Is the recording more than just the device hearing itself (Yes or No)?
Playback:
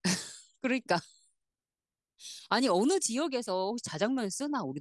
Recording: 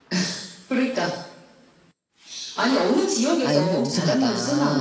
Yes